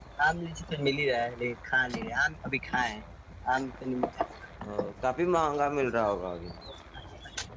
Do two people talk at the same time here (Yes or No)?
No